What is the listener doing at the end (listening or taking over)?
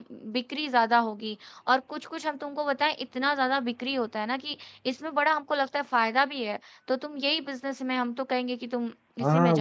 taking over